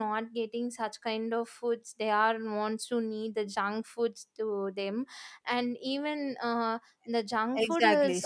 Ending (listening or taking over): taking over